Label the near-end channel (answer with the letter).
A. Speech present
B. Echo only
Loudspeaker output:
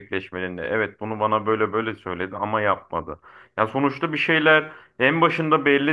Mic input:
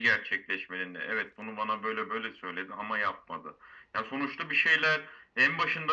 B